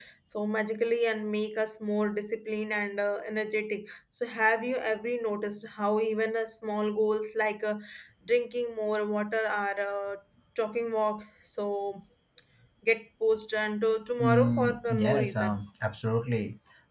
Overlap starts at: 14.2 s

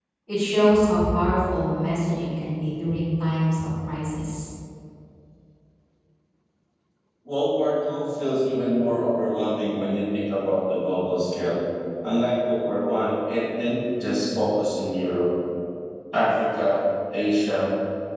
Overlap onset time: none

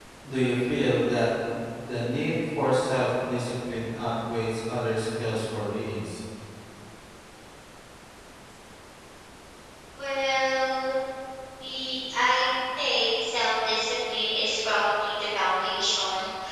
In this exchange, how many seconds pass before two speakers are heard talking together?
none

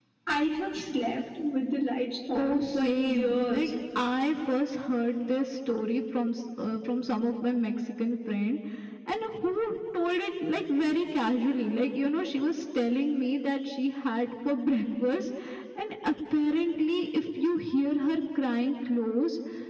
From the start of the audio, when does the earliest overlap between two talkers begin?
2.3 s

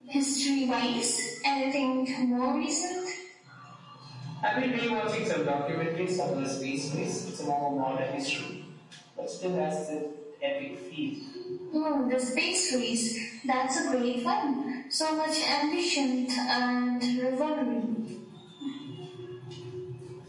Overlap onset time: none

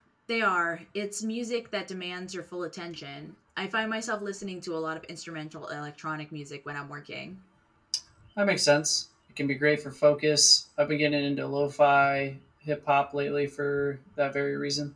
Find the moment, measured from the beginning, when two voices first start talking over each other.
none

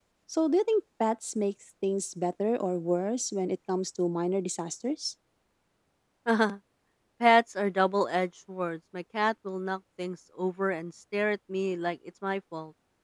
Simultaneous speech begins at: none

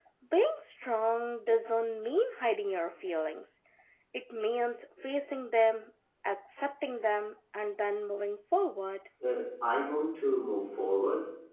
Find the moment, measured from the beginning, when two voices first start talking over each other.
none

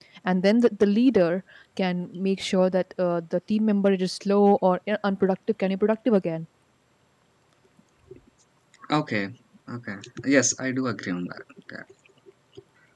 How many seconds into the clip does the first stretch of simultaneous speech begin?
none

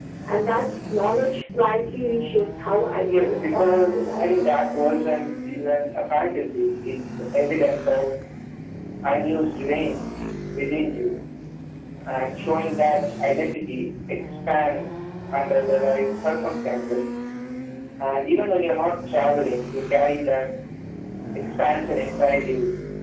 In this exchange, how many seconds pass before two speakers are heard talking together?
3.0 s

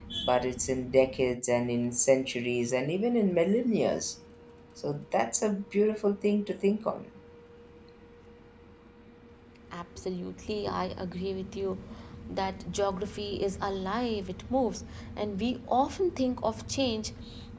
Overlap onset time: none

